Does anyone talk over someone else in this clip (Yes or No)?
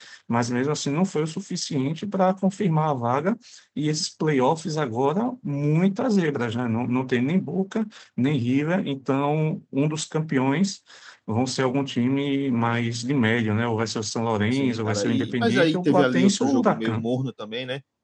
Yes